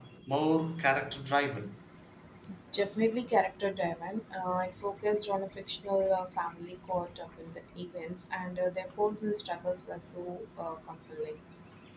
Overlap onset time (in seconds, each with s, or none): none